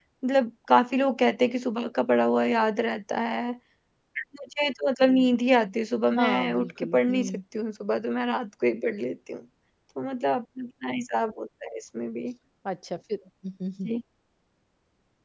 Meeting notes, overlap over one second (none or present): present